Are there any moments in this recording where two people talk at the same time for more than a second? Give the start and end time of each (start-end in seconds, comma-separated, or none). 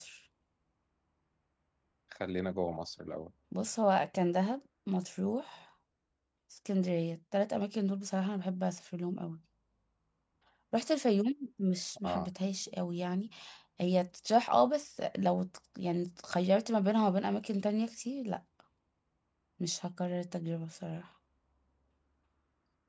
none